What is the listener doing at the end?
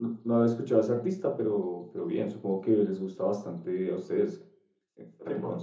listening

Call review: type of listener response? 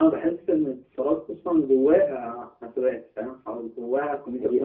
taking over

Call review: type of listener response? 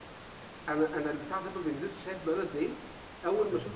listening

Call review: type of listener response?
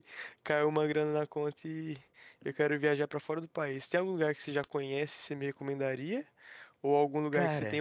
listening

